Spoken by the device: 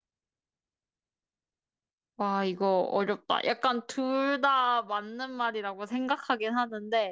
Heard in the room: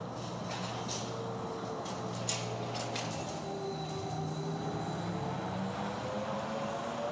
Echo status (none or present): none